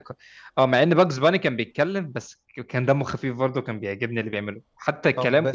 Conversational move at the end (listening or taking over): taking over